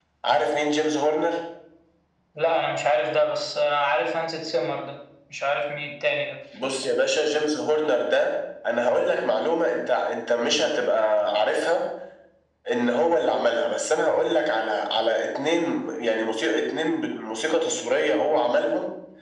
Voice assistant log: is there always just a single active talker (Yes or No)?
Yes